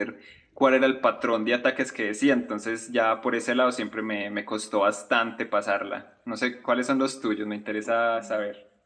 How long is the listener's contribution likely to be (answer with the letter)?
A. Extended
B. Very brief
A